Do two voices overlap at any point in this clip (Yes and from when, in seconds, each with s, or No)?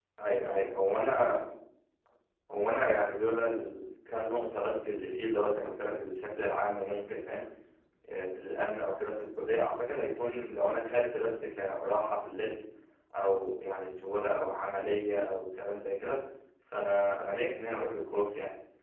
No